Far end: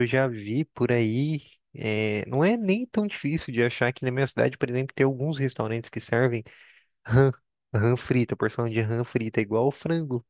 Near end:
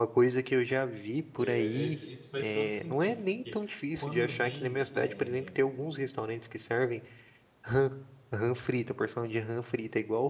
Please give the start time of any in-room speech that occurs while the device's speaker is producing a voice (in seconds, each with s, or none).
1.4 s